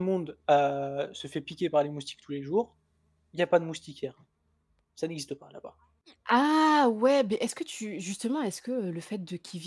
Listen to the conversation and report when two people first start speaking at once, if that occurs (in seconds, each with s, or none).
none